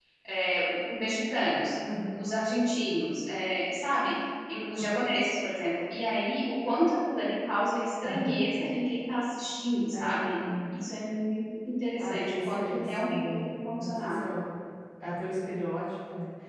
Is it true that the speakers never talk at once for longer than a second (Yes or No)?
No